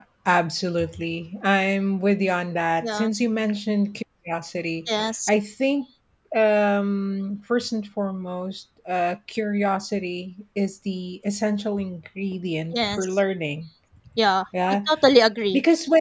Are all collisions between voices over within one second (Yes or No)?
Yes